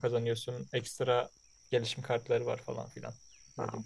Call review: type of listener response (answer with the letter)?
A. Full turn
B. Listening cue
A